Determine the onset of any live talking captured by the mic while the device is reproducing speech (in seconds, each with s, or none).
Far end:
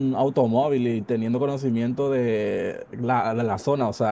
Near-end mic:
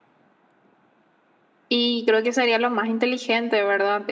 1.7 s